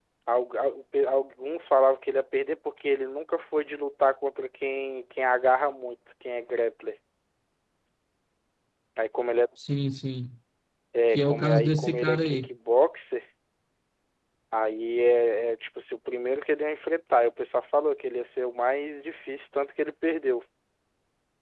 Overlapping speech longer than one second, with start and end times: 11.1-12.5

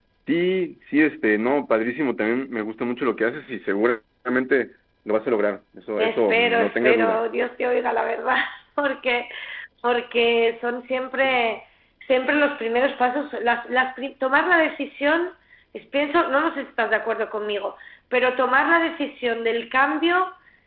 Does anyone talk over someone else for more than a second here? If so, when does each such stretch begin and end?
6.0-7.2

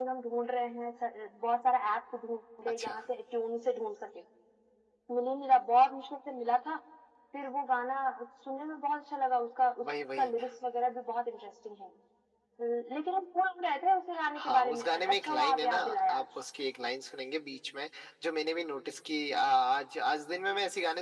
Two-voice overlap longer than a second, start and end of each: 14.4-16.2

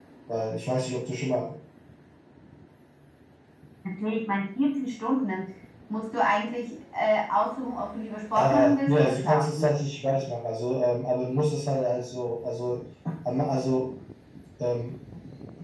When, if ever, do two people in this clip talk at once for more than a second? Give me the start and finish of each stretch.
8.3-9.7

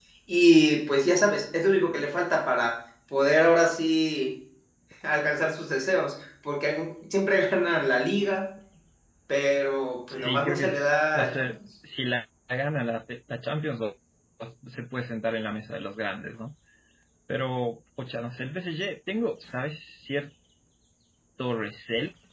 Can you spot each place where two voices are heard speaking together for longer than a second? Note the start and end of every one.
10.1-11.5

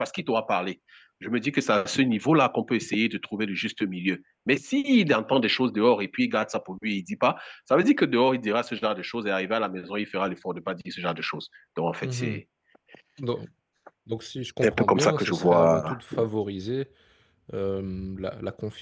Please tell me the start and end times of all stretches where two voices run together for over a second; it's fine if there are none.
14.6-16.0

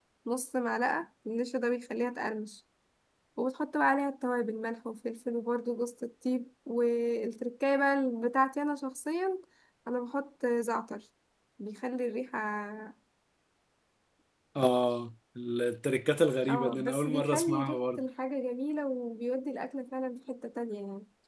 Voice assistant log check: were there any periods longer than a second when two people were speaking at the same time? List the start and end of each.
16.5-18.0

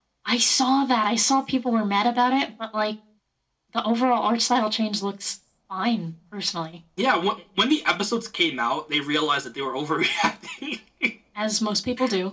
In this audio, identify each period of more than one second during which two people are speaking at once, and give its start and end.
none

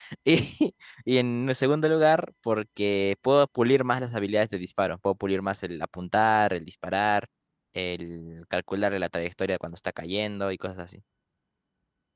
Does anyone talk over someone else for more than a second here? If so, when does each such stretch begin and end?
none

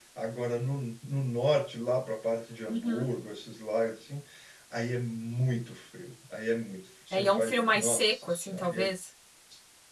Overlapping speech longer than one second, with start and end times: 7.1-8.7

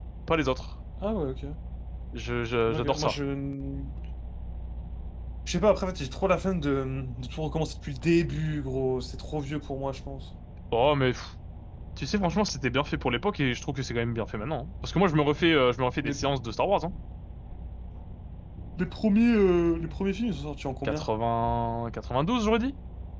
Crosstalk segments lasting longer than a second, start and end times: none

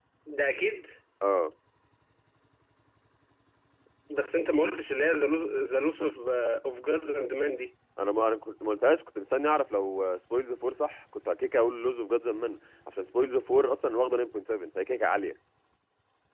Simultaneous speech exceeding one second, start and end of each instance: none

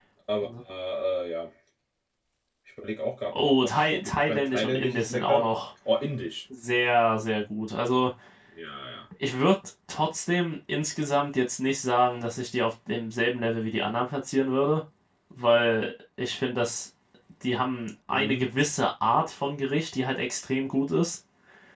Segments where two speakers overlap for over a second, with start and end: 3.3-5.5

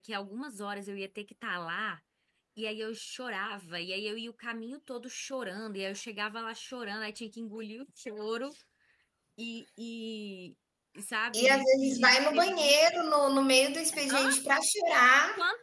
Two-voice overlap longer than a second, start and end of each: 11.3-12.8

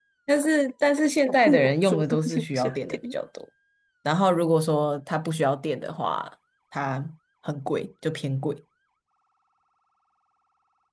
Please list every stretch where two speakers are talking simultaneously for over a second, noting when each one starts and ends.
1.3-3.0

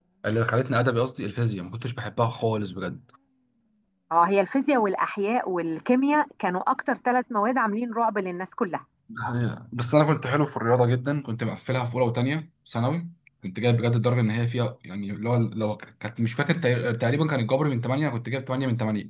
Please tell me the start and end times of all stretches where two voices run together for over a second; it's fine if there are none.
none

